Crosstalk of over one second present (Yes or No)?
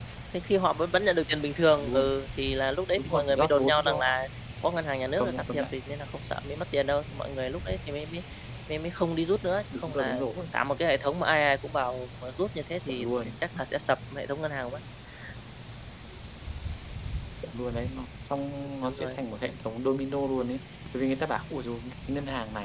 Yes